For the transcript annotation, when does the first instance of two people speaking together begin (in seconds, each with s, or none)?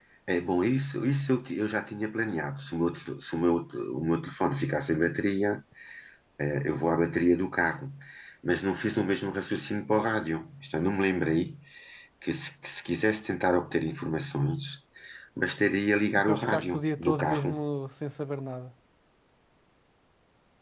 16.3 s